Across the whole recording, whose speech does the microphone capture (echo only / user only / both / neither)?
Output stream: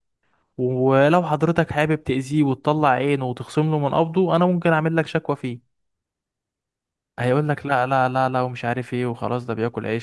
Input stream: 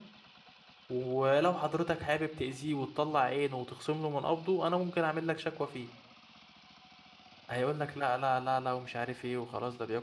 echo only